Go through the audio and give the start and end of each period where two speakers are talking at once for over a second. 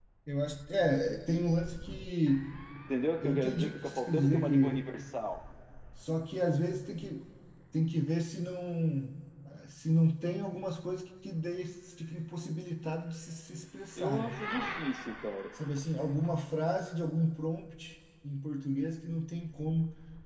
3.2-4.9

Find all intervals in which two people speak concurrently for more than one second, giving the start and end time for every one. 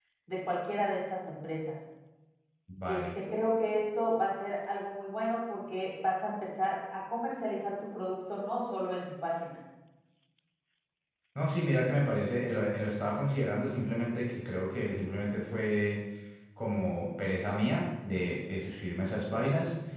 none

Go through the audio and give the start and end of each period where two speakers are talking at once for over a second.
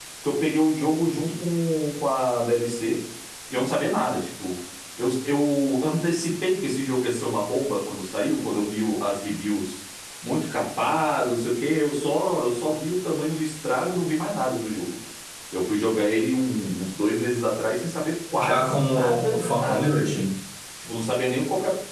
18.4-20.2

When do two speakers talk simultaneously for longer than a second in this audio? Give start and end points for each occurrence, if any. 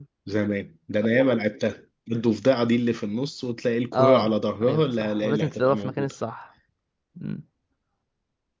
3.9-6.1

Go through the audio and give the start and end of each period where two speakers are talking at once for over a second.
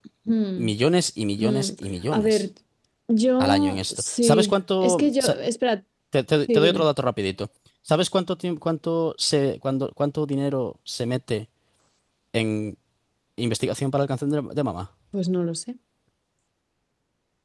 3.4-5.3

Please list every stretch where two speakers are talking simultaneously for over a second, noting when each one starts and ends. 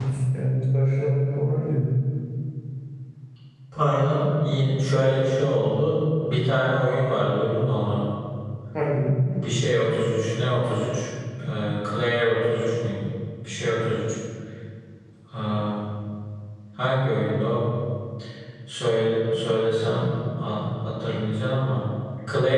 none

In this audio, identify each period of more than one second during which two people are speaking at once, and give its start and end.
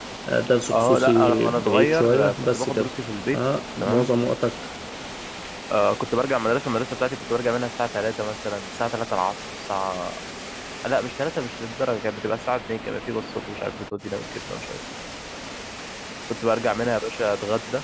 0.7-2.9

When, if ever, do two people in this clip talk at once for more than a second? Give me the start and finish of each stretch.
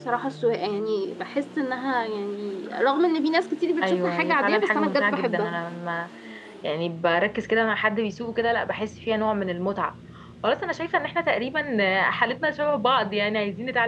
3.8-5.6

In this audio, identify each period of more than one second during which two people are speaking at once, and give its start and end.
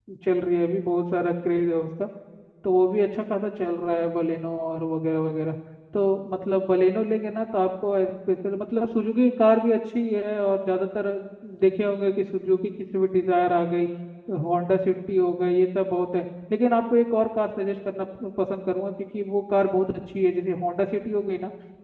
none

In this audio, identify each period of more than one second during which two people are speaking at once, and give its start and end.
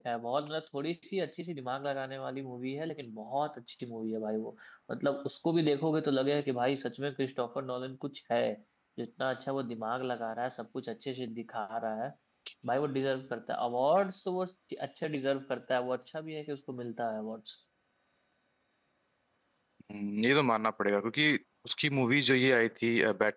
none

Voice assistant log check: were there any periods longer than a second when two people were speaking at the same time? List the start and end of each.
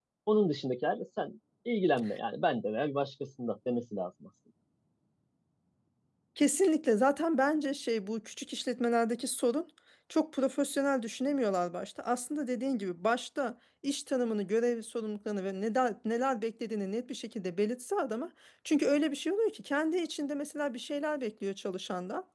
none

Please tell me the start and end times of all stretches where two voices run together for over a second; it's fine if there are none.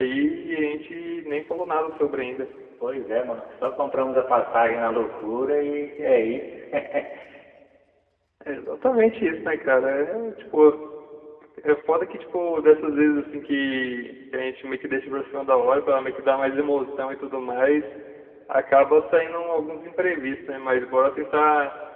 none

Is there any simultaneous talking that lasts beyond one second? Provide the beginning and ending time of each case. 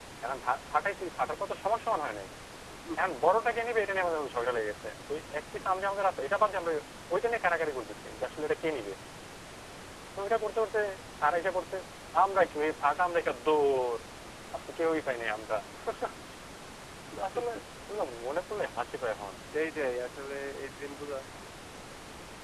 none

